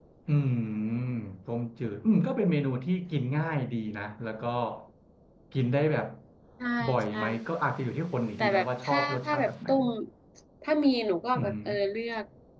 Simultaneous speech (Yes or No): Yes